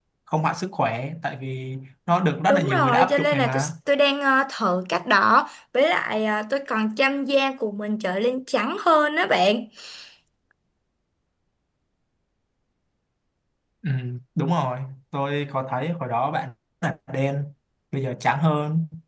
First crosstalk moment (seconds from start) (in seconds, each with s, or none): 2.5 s